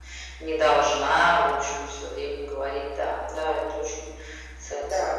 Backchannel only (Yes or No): No